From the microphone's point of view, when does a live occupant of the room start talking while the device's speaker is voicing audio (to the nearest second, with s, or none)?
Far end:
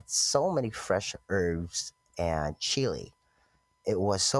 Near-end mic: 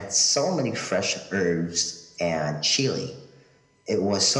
none